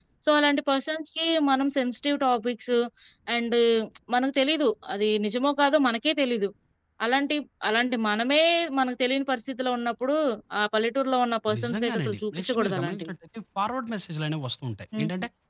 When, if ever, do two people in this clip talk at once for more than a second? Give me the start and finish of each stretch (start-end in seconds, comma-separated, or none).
11.6-13.1